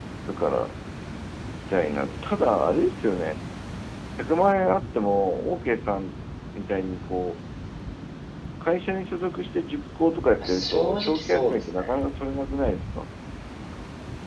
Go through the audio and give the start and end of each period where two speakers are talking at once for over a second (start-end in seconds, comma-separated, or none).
10.4-12.0